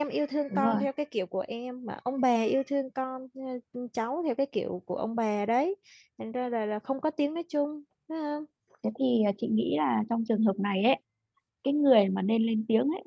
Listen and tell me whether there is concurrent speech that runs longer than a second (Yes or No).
No